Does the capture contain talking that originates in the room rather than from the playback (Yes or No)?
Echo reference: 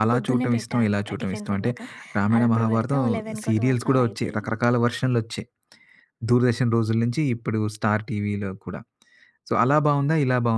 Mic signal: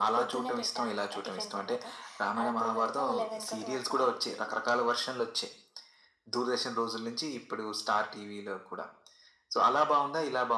No